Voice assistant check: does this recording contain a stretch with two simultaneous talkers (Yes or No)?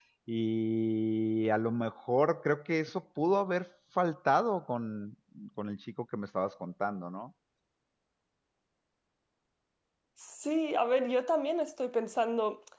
No